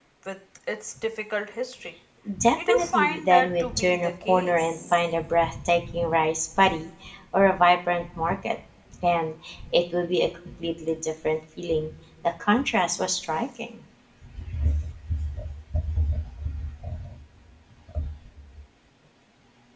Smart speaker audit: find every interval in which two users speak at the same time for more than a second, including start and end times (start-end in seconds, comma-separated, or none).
2.7-5.0